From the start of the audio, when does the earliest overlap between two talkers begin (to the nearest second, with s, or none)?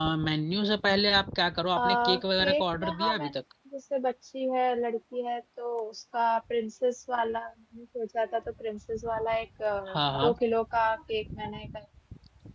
2 s